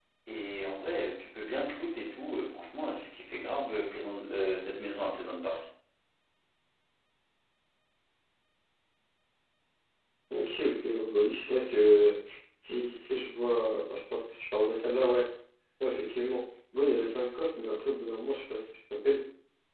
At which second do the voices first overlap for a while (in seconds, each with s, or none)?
none